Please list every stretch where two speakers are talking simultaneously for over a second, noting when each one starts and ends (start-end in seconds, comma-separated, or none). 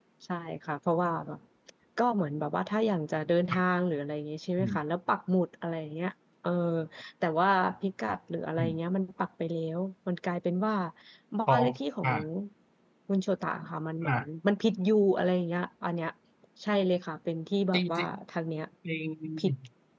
none